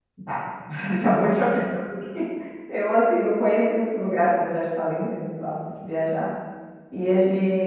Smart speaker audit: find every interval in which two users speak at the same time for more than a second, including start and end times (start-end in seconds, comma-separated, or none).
none